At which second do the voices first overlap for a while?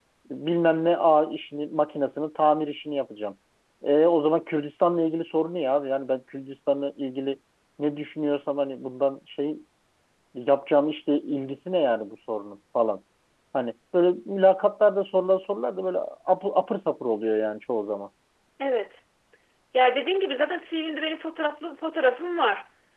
none

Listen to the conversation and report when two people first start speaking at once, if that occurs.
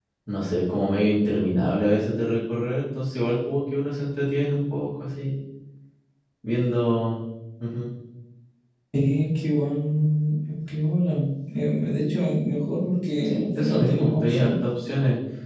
13.2 s

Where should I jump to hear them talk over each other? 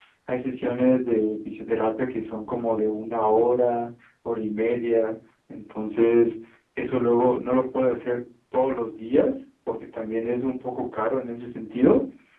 none

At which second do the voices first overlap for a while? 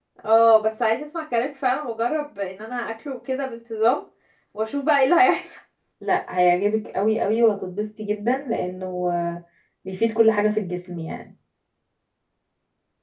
none

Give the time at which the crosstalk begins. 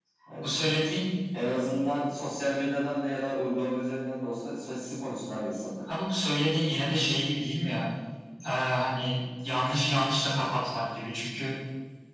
none

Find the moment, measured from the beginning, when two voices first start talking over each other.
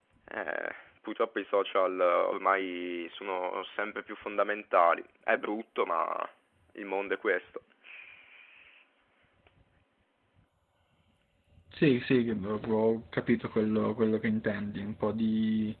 none

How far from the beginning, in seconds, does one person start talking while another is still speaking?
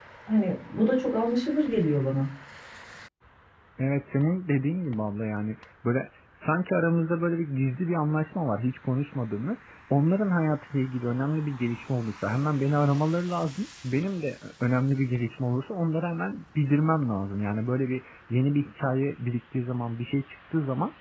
none

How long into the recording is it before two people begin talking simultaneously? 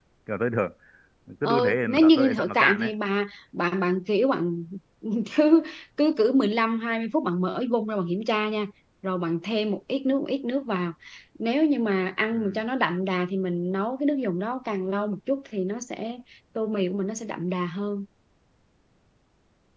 1.4 s

